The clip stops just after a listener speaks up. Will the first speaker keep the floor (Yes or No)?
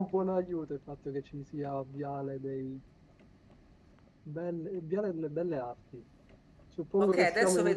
No